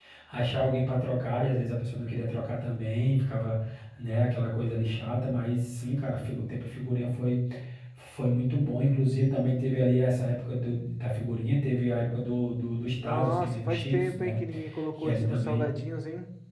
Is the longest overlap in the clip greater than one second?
Yes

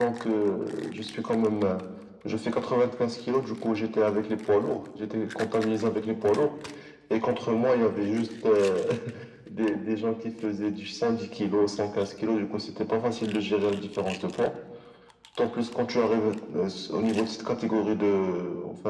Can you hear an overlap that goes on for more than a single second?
No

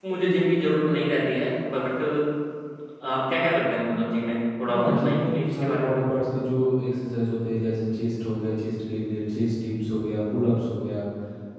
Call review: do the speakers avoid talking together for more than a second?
No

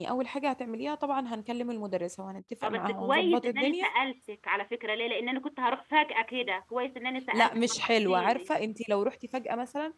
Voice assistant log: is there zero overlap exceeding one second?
No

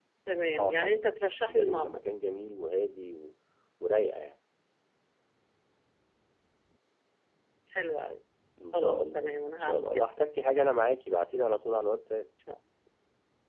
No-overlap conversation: No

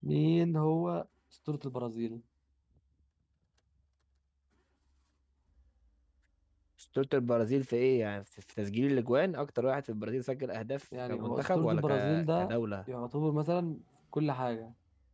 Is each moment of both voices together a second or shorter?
No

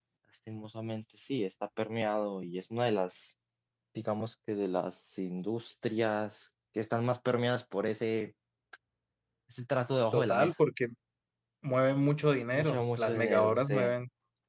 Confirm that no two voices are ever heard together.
No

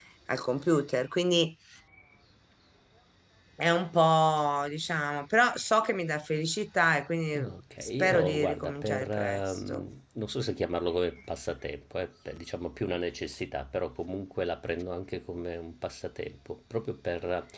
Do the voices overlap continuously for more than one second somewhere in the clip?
Yes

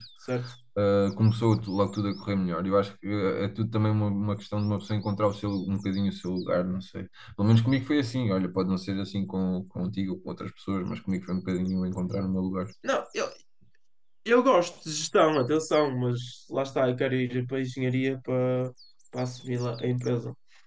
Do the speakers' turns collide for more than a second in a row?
No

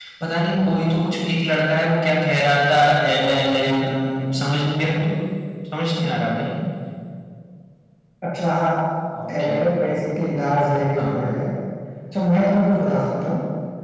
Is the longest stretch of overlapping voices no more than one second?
Yes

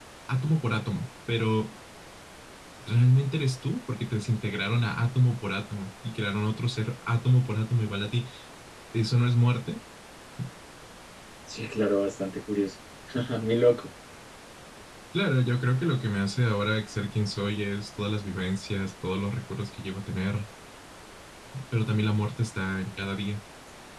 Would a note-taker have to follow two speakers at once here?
No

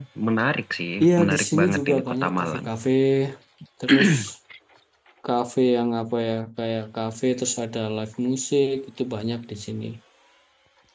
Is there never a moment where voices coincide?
No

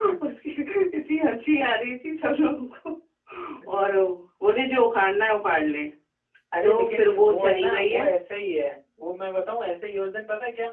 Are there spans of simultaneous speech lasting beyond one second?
Yes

